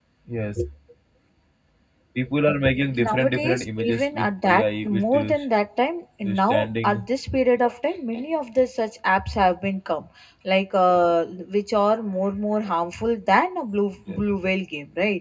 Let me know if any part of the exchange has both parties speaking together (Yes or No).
Yes